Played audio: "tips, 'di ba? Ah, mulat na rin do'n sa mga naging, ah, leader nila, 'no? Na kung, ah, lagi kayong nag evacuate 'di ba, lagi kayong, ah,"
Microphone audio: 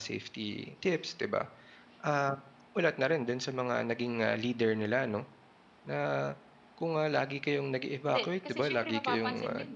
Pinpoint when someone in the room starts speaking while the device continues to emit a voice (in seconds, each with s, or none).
8.0 s